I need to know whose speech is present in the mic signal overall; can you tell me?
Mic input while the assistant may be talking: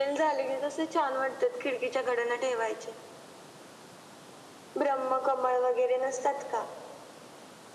echo only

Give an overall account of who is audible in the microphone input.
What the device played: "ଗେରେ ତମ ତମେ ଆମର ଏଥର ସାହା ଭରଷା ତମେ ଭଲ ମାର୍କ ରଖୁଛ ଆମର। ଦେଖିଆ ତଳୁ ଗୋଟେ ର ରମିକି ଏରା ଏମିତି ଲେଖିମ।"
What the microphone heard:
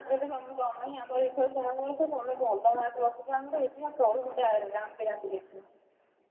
echo only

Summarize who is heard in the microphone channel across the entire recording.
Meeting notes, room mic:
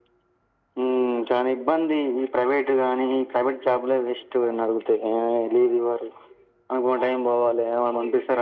echo only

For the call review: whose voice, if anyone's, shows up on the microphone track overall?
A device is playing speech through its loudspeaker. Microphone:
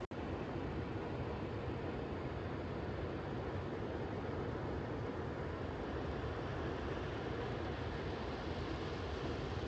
neither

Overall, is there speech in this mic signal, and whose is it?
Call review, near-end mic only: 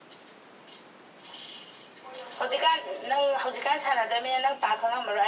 echo only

